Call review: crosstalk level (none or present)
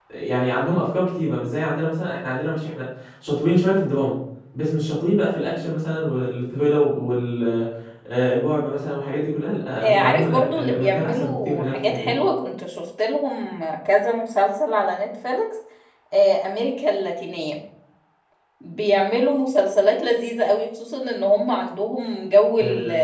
present